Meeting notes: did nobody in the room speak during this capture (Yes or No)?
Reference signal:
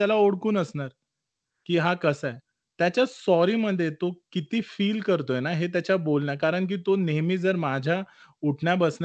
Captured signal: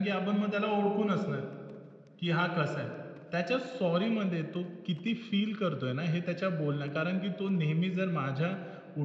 Yes